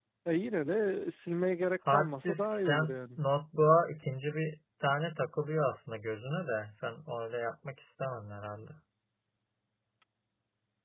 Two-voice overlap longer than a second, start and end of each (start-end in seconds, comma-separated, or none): 1.9-3.2